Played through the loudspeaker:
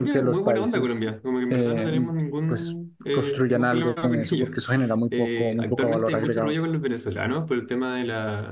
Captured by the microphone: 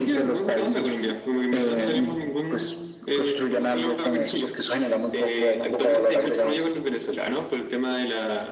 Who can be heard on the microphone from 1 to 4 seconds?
echo only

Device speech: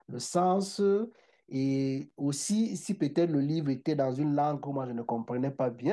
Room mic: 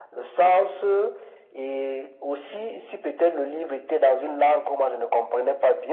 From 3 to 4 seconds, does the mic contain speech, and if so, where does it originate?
echo only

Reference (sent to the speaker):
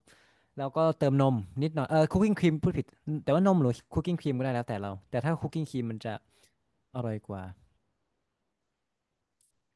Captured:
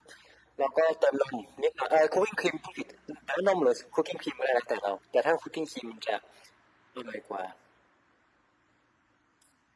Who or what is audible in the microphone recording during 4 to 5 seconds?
echo only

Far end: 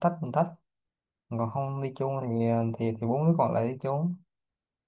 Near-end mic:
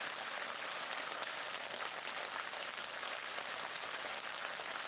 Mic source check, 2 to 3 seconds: neither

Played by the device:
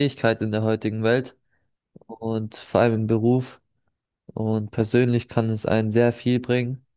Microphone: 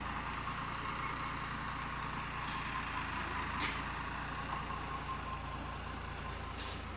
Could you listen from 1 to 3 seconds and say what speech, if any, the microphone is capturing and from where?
neither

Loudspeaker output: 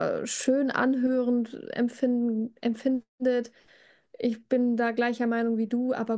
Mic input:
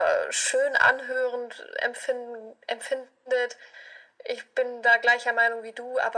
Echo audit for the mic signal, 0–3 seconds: echo only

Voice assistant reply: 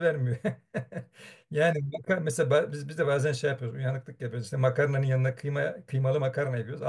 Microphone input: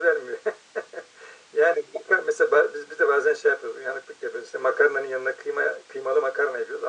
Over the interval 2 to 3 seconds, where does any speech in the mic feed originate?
echo only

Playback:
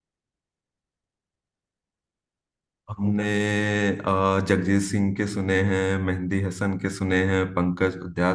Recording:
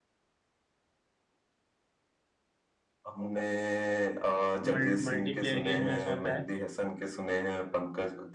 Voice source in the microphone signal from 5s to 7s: both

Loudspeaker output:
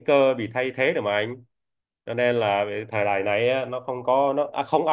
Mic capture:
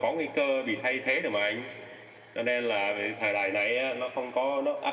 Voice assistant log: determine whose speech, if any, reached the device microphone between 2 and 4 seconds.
echo only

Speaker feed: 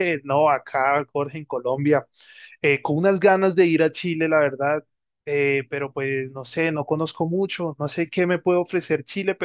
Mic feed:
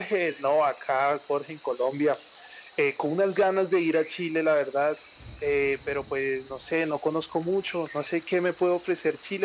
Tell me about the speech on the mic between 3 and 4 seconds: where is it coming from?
echo only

